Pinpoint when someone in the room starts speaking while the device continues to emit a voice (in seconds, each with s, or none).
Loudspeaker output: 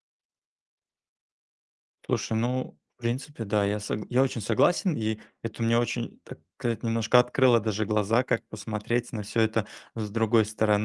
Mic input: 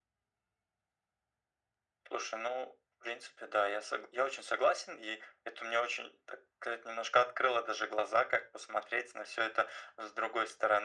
none